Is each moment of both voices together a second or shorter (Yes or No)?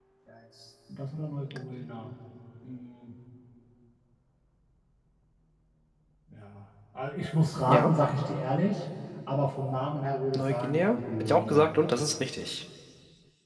No